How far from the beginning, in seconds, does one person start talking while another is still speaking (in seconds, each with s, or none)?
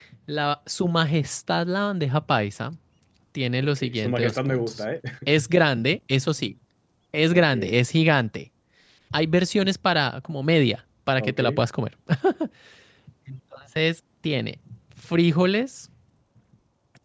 3.6 s